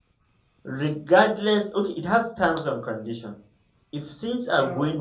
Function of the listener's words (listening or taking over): listening